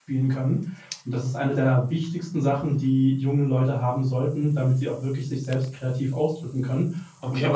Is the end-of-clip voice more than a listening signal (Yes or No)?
Yes